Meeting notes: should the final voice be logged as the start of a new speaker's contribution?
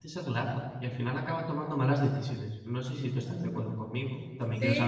Yes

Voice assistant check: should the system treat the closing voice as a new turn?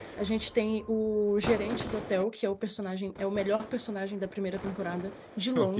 No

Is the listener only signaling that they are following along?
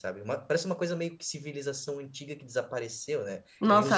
No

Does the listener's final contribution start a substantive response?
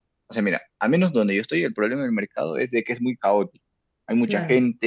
No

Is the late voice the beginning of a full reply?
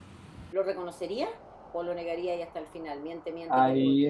Yes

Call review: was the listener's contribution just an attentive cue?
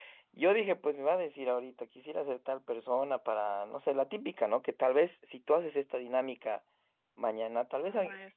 Yes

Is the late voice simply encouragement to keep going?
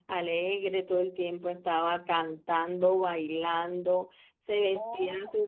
Yes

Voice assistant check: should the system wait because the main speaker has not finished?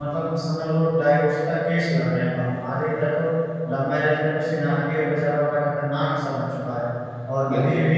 Yes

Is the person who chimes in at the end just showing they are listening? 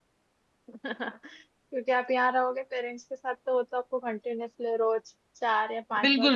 No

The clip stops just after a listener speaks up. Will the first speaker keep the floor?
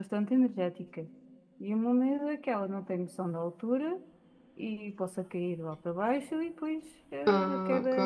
Yes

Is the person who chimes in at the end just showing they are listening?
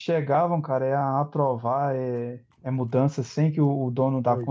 Yes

